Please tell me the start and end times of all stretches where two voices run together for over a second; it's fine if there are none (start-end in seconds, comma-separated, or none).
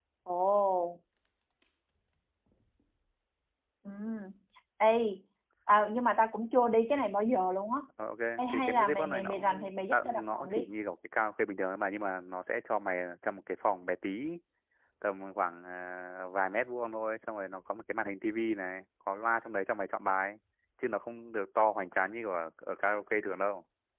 8.4-10.7